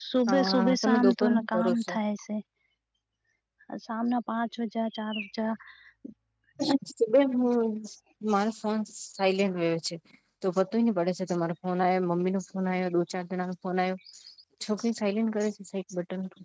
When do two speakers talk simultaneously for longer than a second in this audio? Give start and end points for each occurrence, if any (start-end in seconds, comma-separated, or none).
0.5-1.9